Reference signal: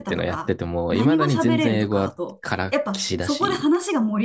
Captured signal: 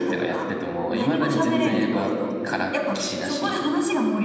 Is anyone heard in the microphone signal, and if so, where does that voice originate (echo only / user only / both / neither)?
echo only